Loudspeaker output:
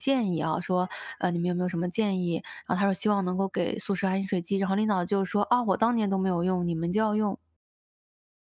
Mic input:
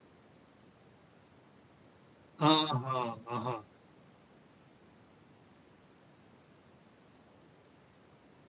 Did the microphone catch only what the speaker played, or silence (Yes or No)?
No